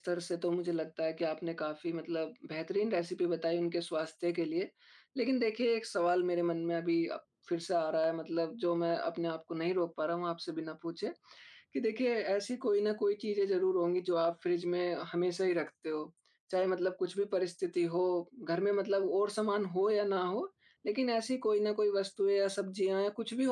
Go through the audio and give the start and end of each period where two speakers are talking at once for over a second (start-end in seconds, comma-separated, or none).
none